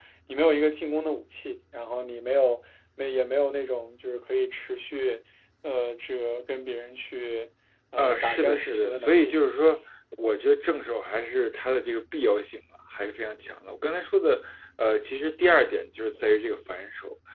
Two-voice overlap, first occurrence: 8.0 s

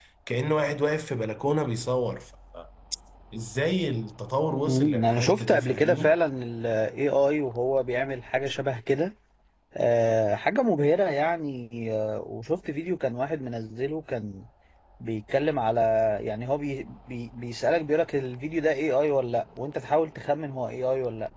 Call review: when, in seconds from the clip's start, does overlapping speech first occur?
4.7 s

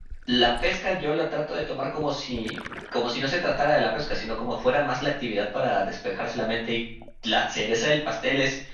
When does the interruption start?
none

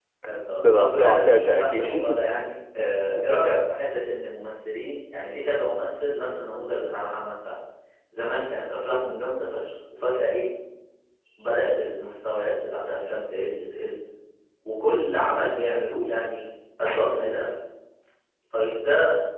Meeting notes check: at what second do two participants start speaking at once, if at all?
0.6 s

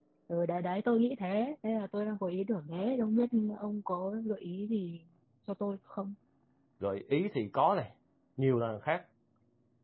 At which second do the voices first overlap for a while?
none

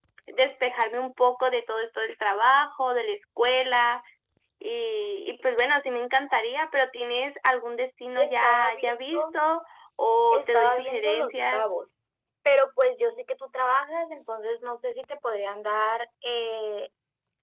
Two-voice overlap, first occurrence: 8.2 s

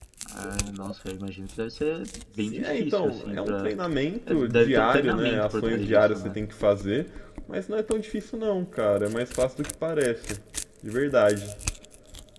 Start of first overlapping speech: 2.4 s

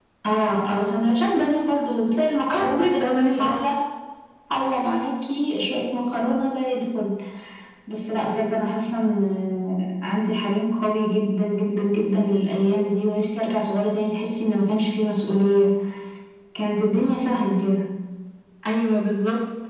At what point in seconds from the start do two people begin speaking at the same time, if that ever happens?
2.5 s

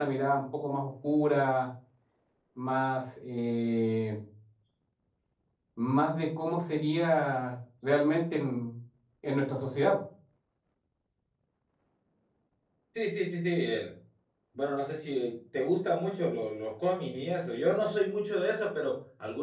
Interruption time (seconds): none

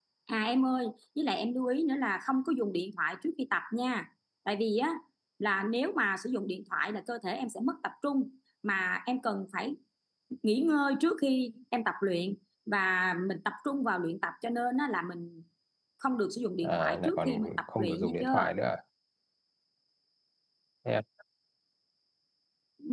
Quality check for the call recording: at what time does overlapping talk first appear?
16.6 s

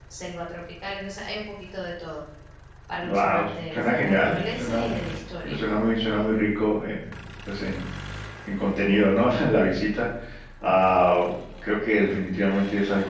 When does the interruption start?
3.0 s

